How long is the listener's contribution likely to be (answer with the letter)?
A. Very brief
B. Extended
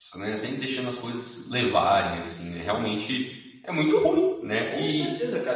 B